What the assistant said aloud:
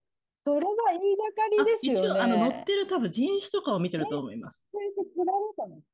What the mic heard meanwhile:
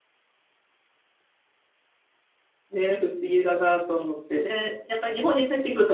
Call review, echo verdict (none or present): none